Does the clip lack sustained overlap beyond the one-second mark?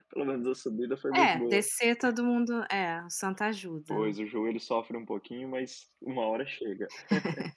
Yes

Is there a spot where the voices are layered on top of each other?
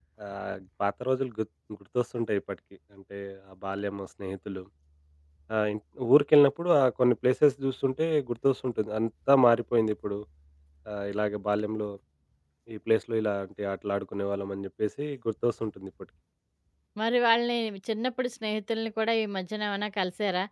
No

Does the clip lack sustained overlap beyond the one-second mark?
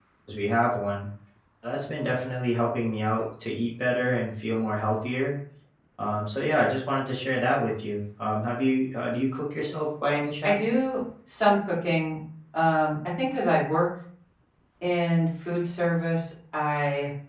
Yes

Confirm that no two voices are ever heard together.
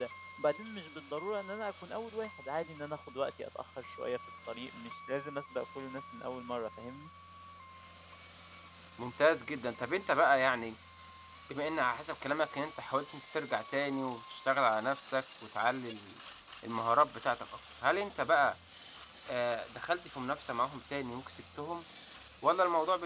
Yes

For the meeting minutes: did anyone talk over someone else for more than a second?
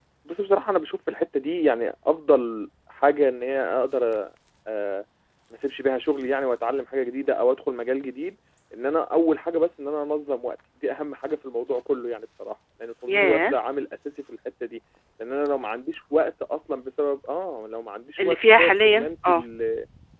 Yes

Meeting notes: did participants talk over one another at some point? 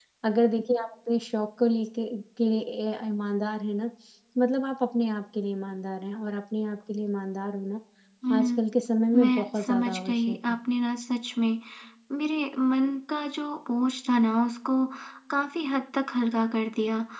Yes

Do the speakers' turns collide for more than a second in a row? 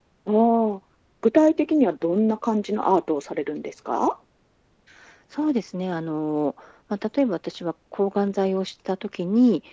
No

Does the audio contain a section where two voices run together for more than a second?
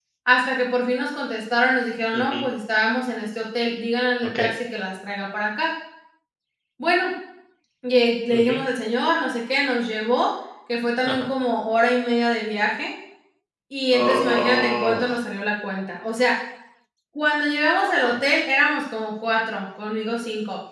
Yes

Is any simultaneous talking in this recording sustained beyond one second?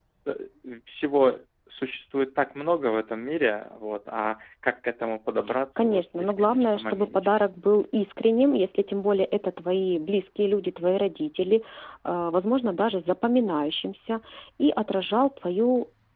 Yes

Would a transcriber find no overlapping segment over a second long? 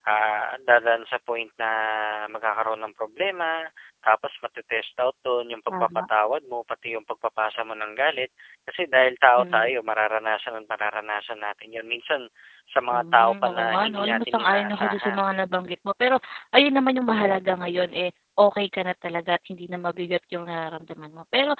No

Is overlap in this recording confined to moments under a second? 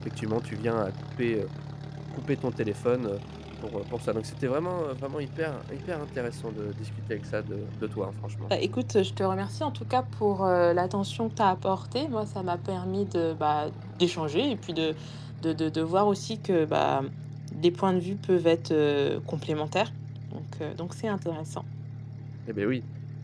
Yes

